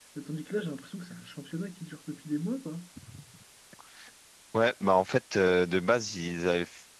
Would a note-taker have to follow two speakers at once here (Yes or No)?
No